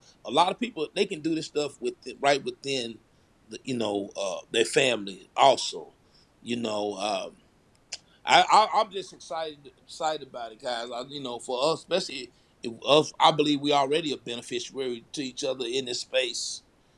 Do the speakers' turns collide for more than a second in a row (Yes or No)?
No